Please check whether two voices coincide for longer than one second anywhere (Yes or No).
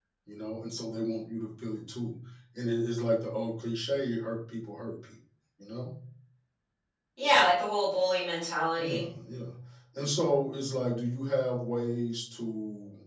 No